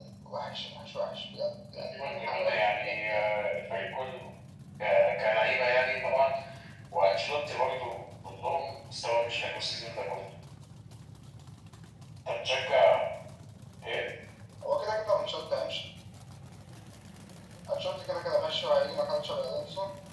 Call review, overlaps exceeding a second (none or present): present